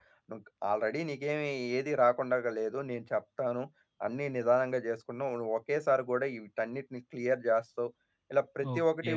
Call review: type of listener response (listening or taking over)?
taking over